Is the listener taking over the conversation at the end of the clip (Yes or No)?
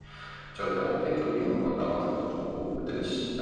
No